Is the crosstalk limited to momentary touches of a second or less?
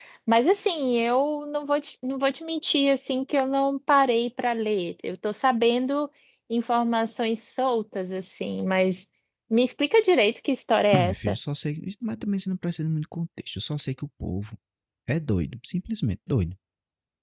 Yes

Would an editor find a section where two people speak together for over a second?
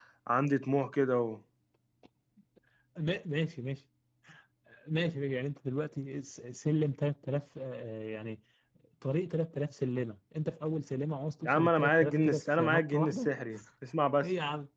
Yes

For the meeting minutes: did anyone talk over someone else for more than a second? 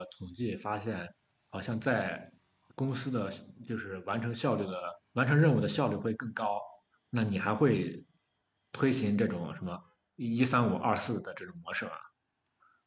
No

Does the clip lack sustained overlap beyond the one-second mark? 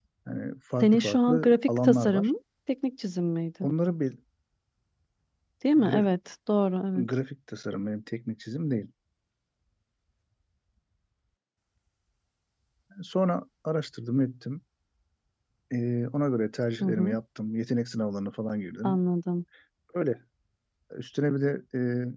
No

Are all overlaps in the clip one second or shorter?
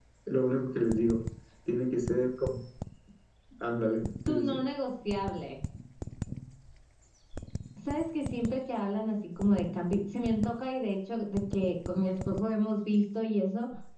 Yes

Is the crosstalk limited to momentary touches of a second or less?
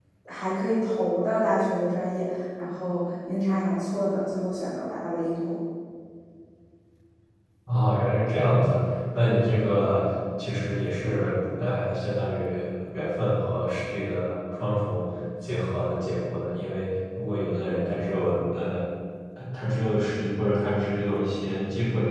Yes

